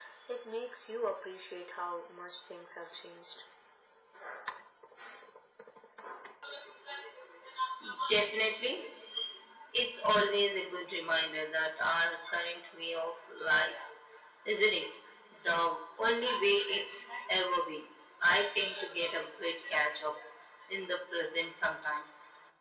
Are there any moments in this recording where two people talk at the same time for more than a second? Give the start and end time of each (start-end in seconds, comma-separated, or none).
none